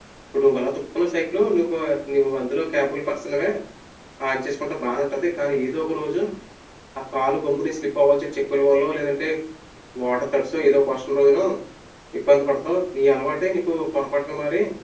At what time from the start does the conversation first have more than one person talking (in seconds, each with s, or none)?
none